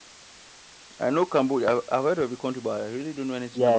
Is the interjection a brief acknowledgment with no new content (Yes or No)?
No